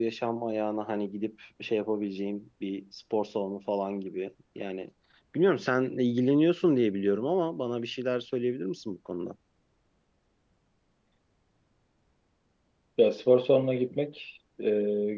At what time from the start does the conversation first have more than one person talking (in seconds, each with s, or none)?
none